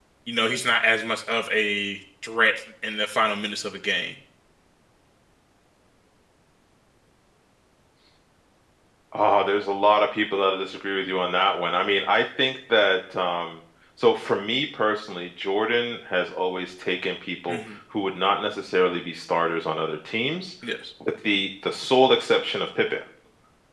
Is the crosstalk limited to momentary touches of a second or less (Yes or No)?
Yes